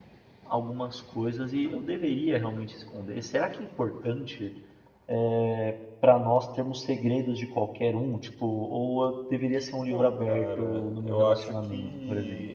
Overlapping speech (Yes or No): Yes